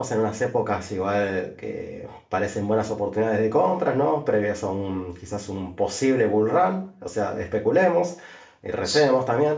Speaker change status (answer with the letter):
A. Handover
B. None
B